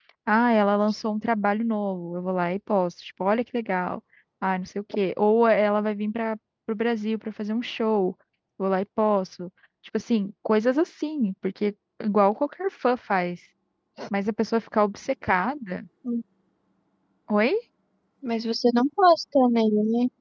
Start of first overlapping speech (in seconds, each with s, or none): none